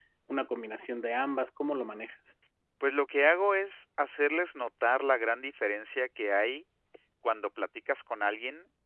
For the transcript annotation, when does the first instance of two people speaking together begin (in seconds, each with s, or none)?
none